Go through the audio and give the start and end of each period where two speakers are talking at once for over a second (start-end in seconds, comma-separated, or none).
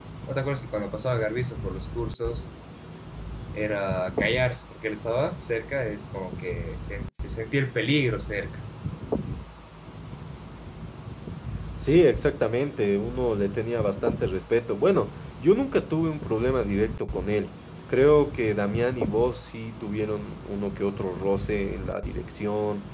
none